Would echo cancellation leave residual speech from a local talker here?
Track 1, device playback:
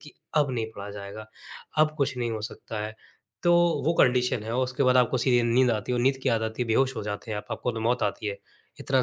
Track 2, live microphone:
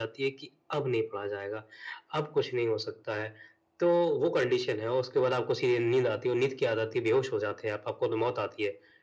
No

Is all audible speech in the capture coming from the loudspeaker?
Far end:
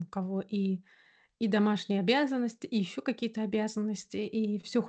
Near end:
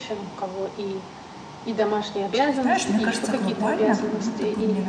No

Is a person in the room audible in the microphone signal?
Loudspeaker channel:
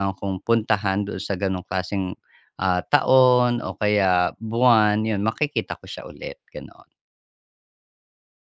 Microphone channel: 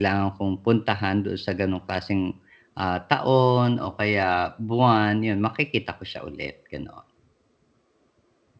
No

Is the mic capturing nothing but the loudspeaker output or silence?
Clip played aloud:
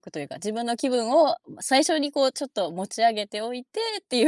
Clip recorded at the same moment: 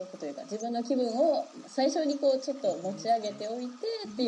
No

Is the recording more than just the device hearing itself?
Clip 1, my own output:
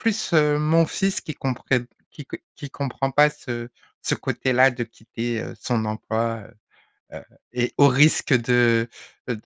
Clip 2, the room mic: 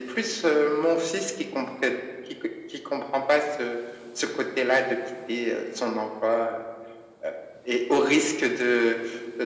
No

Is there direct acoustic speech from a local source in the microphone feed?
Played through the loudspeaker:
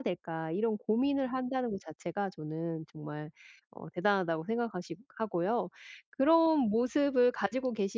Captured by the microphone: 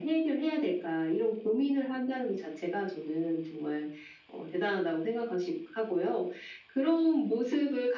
No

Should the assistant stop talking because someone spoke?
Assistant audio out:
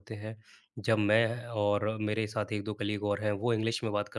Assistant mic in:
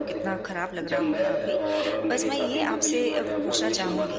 Yes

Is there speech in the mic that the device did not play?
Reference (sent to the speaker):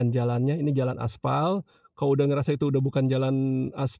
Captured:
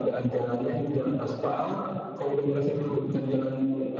No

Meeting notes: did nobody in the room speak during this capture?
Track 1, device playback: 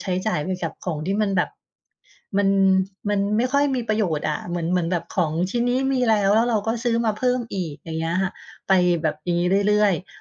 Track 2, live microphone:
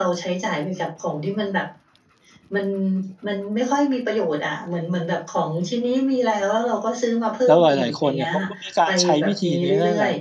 No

